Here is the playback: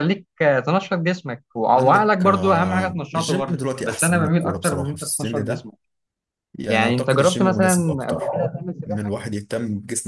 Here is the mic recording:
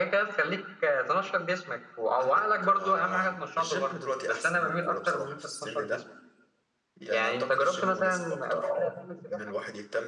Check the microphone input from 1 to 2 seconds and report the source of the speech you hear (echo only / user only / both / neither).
echo only